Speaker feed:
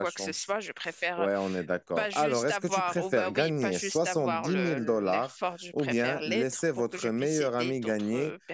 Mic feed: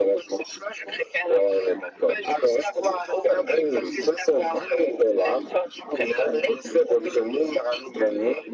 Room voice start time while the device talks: none

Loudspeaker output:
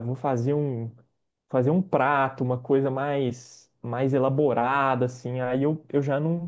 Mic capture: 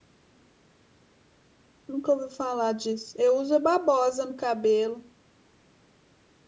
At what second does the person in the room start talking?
1.9 s

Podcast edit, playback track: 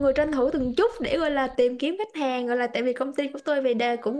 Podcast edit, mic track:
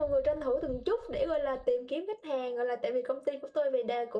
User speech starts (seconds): none

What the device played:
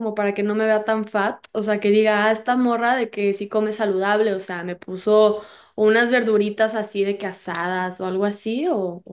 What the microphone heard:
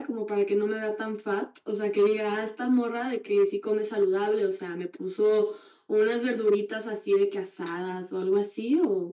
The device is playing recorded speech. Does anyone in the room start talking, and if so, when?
none

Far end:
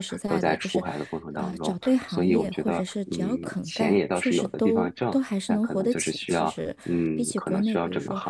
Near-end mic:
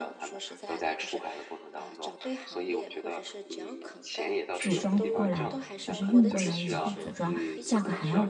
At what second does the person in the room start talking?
4.6 s

